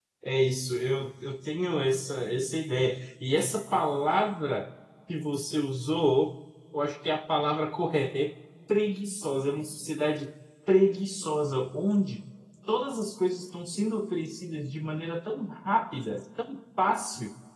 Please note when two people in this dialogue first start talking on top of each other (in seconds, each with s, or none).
none